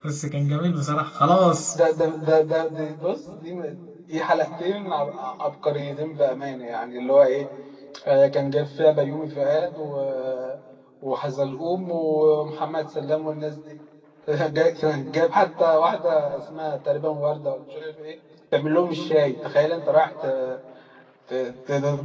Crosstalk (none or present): none